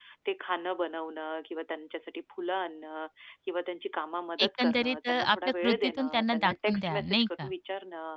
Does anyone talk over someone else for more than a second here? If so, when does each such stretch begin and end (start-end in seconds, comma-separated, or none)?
4.4-7.5